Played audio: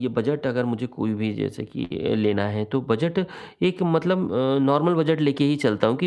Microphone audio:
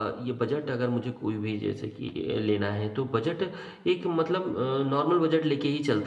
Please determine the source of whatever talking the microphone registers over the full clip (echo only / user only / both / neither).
echo only